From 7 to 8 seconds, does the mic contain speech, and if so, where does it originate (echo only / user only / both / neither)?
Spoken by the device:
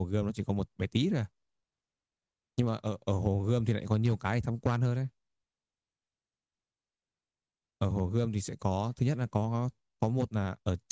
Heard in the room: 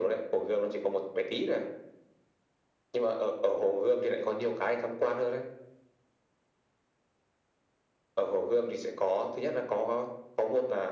neither